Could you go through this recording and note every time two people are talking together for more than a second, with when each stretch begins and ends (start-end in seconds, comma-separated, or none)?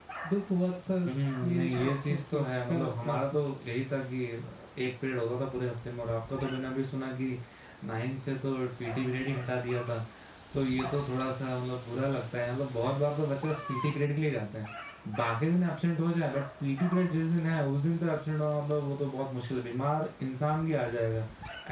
1.5-3.4